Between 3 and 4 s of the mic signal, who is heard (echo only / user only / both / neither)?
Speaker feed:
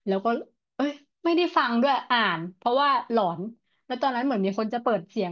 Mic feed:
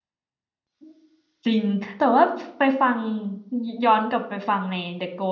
user only